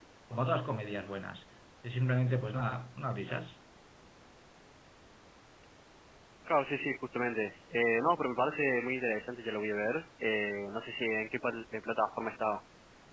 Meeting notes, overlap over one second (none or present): none